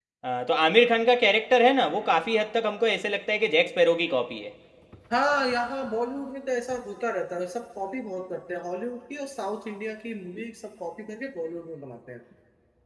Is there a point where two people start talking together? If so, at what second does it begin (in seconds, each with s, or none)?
none